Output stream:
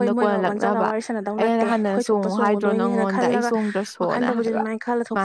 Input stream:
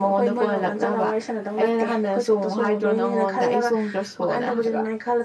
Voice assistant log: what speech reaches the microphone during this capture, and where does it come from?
echo only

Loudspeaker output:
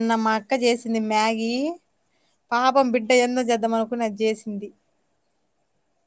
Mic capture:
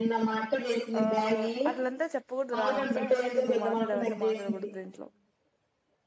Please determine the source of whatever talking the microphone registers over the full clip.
both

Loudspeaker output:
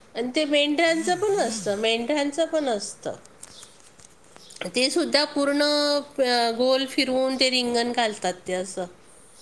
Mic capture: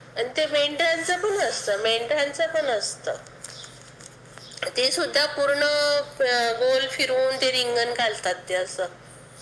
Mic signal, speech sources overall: echo only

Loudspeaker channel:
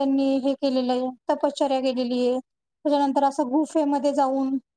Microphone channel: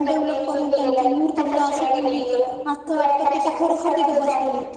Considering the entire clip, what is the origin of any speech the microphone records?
both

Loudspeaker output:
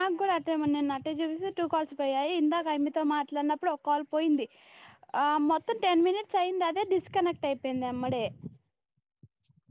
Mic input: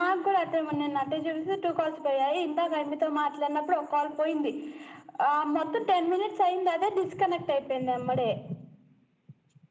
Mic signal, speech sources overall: echo only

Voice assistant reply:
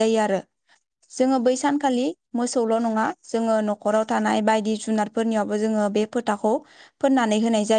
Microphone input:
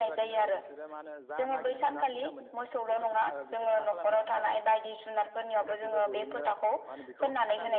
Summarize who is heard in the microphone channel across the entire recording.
both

